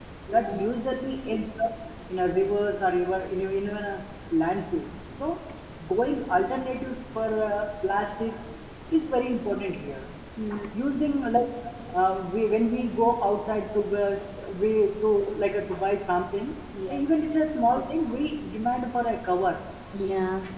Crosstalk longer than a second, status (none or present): none